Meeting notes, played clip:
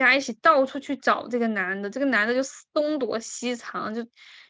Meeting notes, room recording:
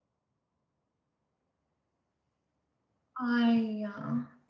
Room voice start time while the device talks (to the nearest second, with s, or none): 3 s